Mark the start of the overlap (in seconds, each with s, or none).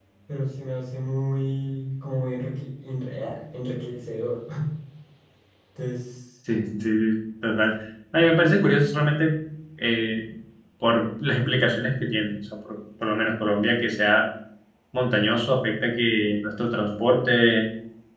none